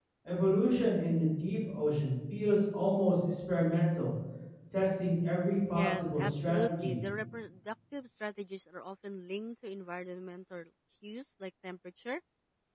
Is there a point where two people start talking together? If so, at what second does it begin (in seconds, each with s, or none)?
5.8 s